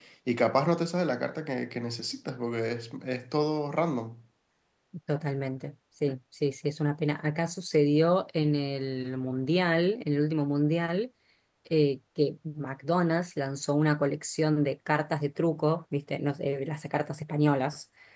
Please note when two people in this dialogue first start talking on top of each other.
none

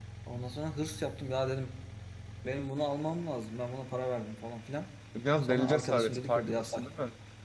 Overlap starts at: 5.4 s

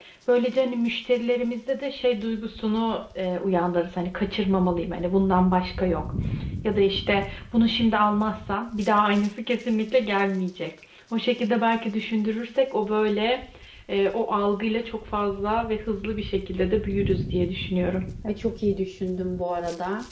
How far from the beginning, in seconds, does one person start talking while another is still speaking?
none

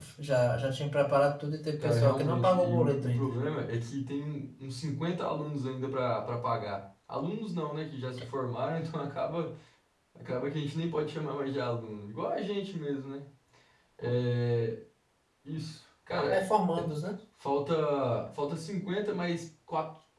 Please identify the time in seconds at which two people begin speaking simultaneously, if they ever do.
1.8 s

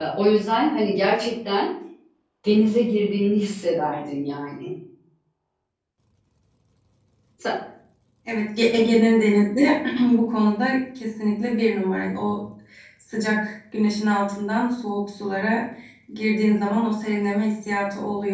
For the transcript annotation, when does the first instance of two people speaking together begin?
none

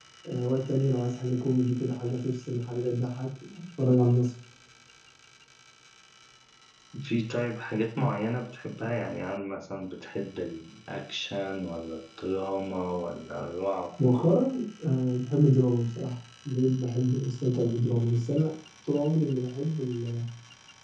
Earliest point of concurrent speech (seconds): none

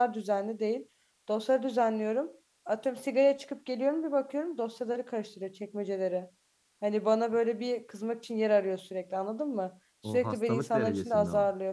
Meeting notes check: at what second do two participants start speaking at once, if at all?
10.0 s

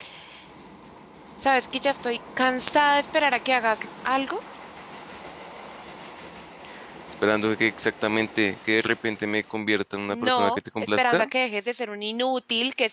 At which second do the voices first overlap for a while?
10.1 s

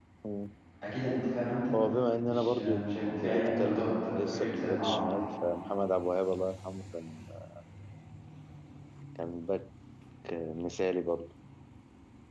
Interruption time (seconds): 2.2 s

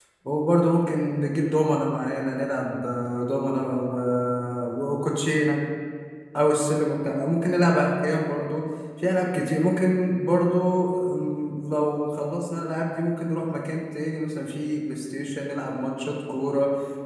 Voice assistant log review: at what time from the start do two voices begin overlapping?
none

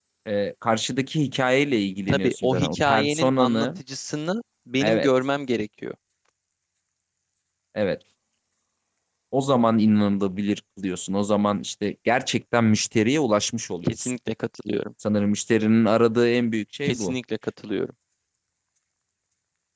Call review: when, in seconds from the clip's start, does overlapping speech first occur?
2.1 s

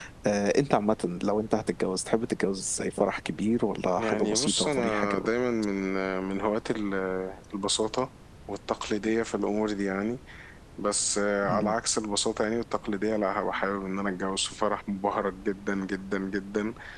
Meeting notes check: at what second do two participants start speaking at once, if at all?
4.0 s

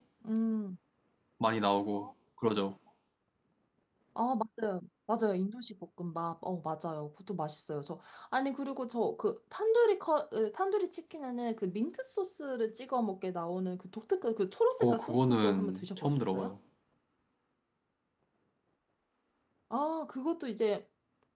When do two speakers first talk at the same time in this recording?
14.8 s

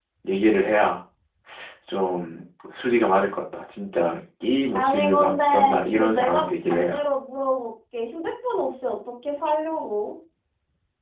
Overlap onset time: 4.7 s

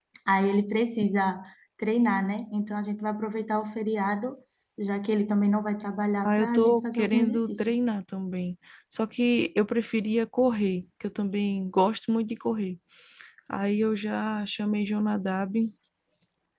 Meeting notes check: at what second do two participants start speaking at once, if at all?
6.2 s

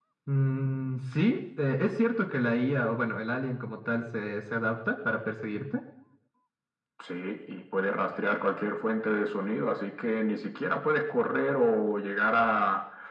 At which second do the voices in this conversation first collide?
none

